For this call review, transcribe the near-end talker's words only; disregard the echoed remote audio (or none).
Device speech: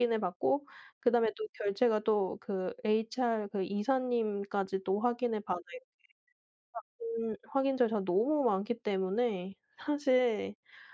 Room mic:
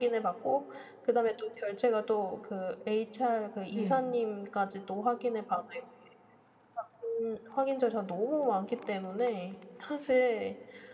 네.